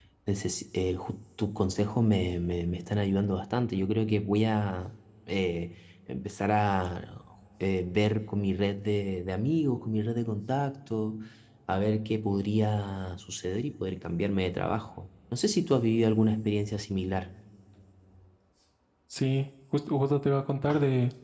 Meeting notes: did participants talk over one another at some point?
No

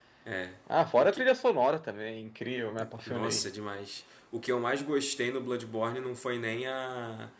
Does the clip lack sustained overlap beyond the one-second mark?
Yes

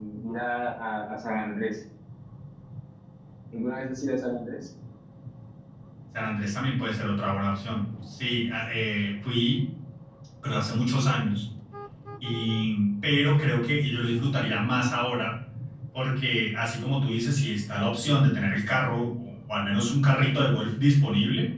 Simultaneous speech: No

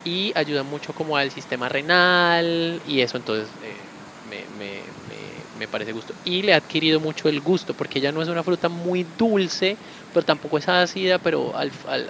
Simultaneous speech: No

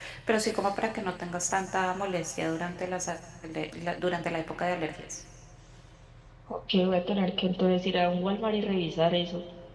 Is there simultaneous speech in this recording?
No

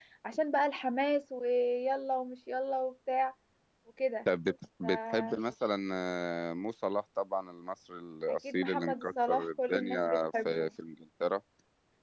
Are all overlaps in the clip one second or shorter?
No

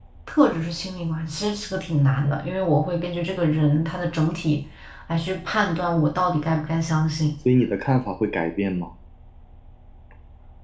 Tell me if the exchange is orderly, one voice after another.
Yes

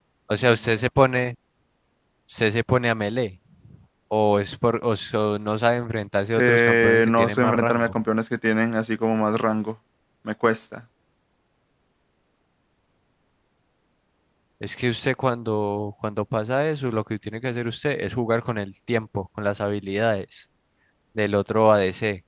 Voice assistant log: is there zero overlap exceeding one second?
No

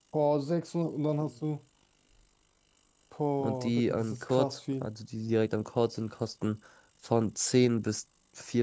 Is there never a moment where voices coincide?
No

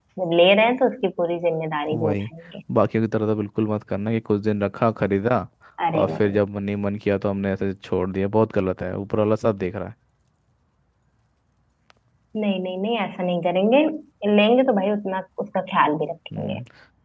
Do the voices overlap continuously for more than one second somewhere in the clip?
No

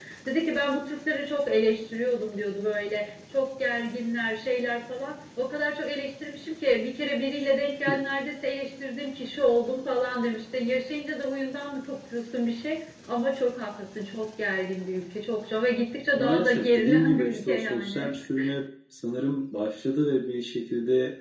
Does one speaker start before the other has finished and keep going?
Yes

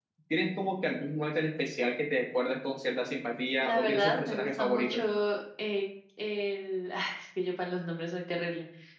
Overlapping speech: Yes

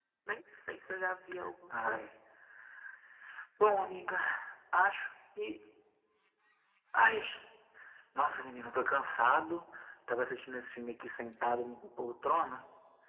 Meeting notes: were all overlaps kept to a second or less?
Yes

